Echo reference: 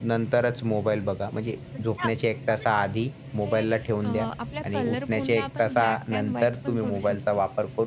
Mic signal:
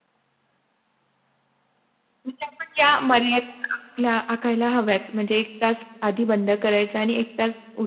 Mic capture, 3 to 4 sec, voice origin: user only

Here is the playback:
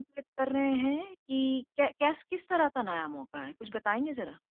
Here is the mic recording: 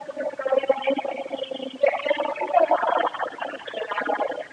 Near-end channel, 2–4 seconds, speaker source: echo only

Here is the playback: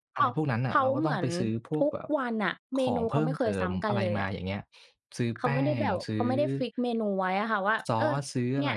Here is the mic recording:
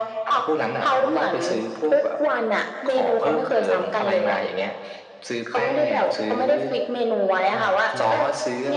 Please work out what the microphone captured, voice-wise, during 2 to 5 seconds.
echo only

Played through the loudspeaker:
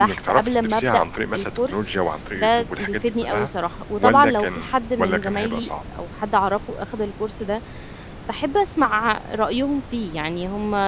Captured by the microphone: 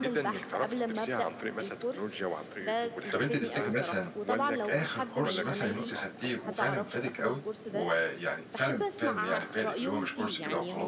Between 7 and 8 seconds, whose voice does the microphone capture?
both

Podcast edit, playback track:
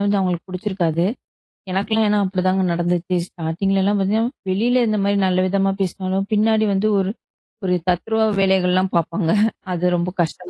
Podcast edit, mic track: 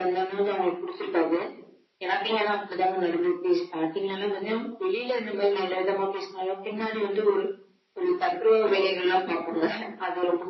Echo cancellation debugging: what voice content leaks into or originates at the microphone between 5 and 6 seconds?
echo only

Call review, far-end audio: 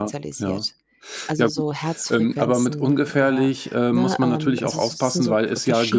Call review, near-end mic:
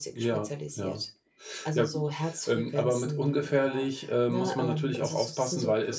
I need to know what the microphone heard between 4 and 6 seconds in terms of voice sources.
echo only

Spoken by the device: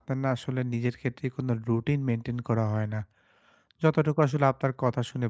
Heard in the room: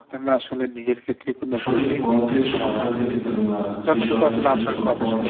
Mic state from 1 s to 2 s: both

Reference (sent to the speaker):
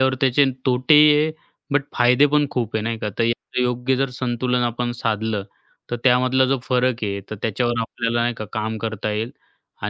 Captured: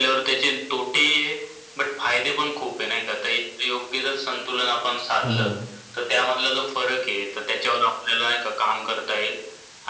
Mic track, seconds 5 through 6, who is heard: both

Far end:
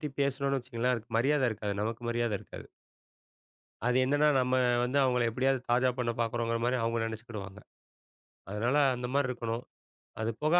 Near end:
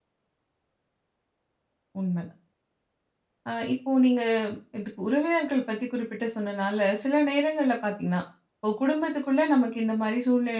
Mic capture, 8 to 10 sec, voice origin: user only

